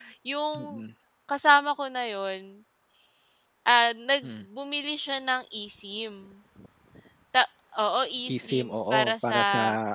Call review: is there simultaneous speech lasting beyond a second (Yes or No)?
Yes